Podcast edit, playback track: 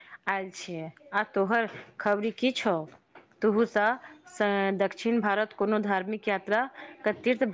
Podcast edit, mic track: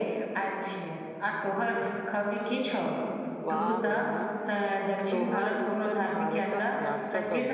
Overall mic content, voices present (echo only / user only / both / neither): both